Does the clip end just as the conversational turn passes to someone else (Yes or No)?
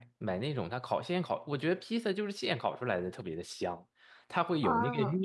No